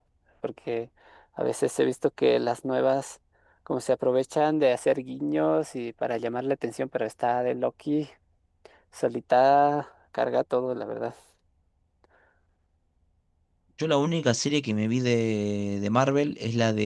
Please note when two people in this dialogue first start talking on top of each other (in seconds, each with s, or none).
none